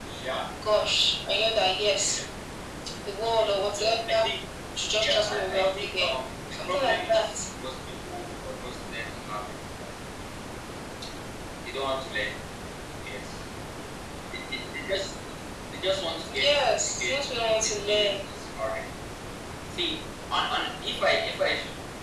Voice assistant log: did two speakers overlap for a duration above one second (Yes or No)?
Yes